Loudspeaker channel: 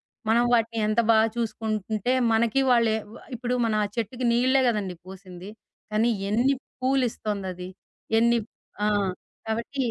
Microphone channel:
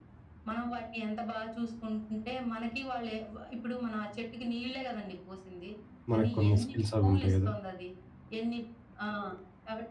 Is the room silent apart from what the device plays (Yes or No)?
No